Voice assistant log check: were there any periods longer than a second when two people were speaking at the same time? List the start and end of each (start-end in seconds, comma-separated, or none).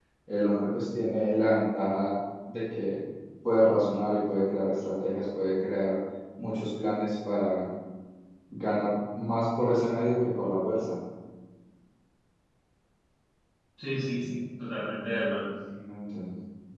none